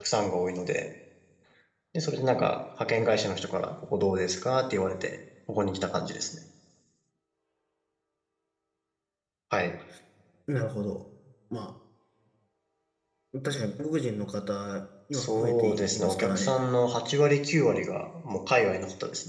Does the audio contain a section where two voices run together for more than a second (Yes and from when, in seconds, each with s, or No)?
Yes, from 15.1 s